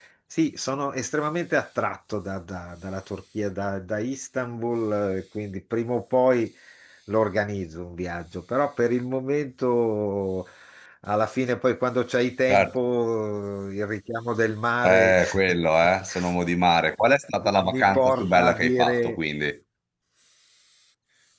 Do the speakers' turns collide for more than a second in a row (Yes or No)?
Yes